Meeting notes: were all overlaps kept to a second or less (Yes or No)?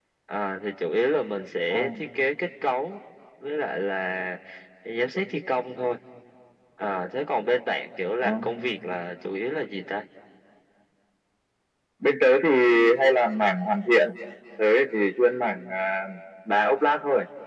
Yes